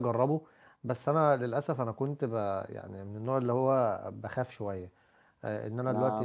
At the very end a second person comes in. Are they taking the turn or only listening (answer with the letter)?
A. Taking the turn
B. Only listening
A